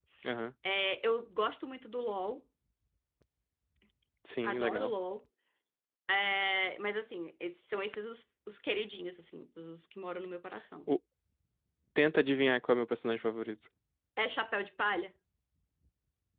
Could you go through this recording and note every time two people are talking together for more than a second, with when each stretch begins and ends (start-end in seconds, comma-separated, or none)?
none